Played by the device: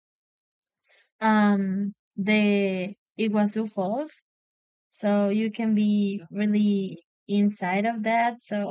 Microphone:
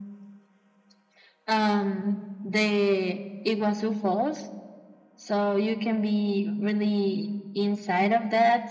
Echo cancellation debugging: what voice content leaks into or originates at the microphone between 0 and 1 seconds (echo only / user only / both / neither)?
neither